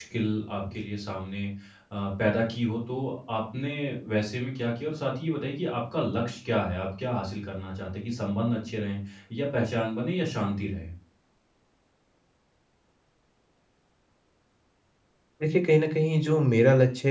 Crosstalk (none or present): none